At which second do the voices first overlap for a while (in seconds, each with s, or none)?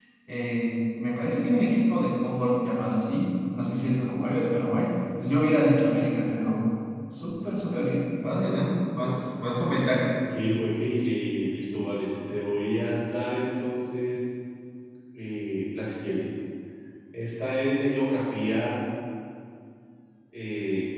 none